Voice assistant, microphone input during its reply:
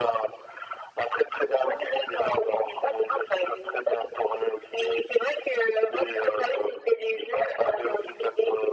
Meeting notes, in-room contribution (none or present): none